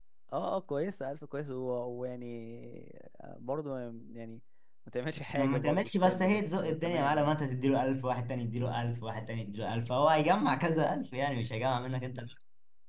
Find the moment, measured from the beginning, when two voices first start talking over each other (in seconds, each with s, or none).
5.3 s